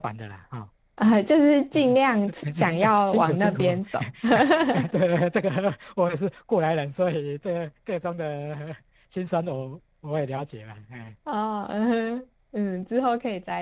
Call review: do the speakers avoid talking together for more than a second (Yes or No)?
No